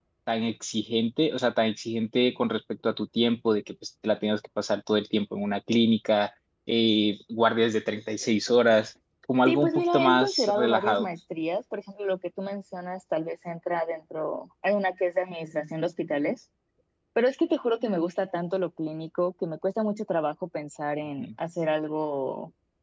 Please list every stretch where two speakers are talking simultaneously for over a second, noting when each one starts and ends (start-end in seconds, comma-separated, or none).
9.5-11.1